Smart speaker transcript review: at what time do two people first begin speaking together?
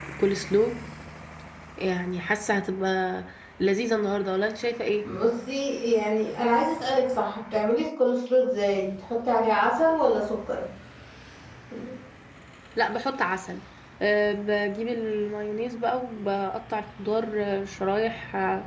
none

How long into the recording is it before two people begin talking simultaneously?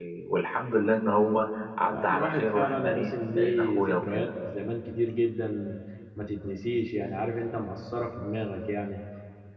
1.9 s

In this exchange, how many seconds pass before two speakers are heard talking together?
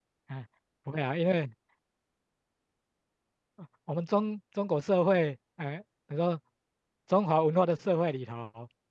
none

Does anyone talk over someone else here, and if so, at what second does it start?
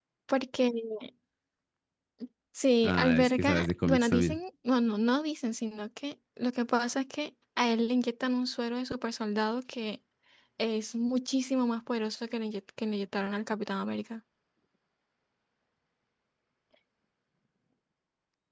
2.8 s

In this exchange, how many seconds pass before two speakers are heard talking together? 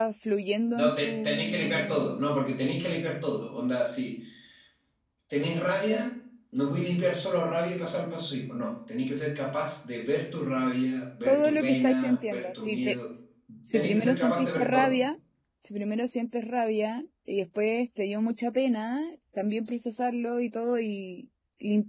0.8 s

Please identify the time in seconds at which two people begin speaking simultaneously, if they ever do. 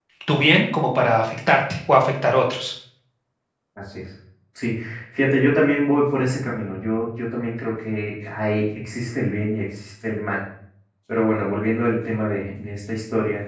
none

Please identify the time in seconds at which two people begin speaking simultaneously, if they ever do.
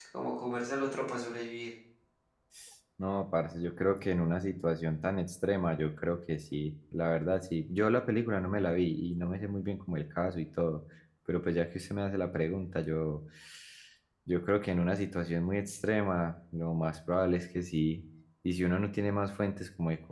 none

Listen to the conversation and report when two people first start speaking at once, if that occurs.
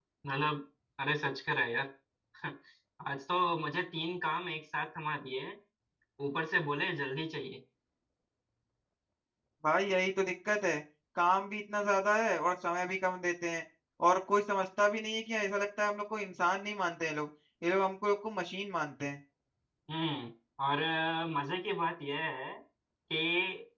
none

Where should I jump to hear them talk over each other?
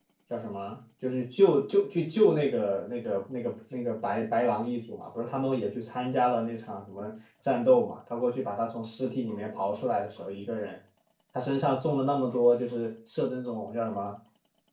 none

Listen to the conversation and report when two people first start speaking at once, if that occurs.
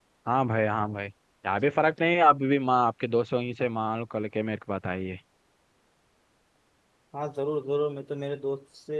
none

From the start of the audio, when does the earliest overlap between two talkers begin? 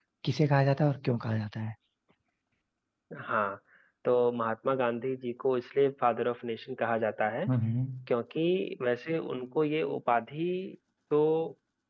none

